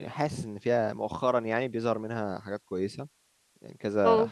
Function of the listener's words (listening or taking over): listening